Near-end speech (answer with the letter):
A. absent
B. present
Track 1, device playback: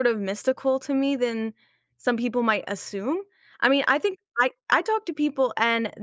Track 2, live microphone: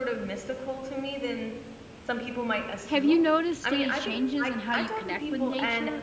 B